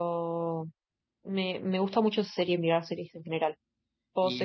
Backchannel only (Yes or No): No